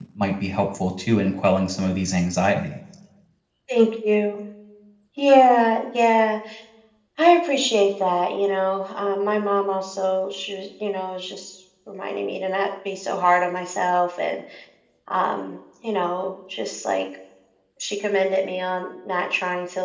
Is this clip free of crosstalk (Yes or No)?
Yes